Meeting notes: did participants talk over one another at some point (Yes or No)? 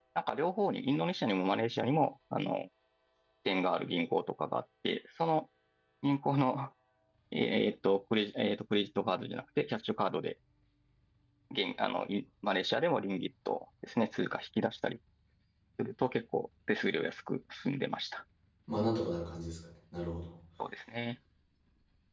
No